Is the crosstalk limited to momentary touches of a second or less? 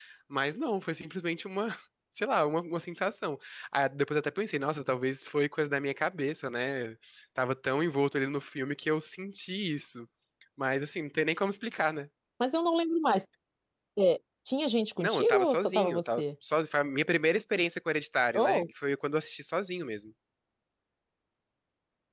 No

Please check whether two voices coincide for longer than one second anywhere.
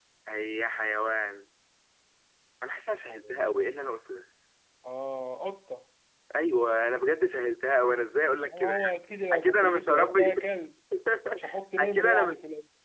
Yes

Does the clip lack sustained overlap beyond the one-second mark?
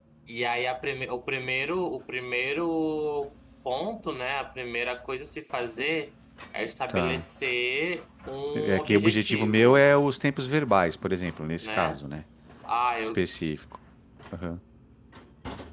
No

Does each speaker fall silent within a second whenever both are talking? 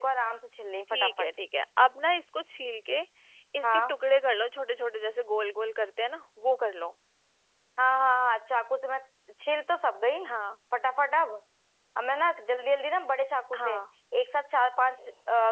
Yes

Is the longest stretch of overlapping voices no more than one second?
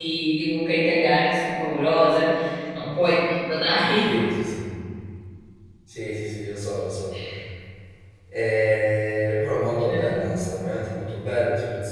Yes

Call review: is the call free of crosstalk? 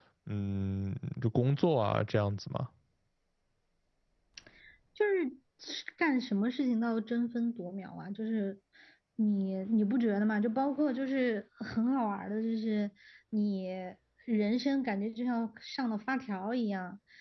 Yes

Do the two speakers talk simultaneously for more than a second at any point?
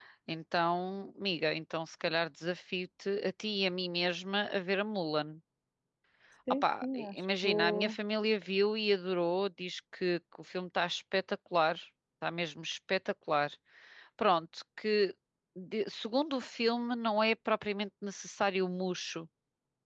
Yes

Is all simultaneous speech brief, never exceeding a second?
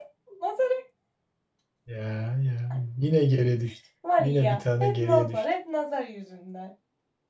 No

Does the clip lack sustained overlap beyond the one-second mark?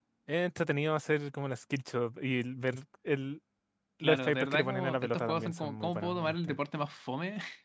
No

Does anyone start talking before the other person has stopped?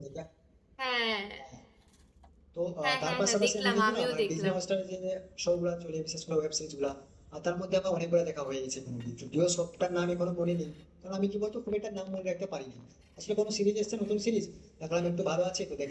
Yes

